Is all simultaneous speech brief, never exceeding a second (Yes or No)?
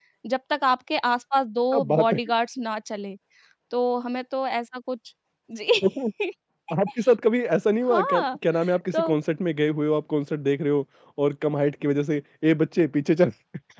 Yes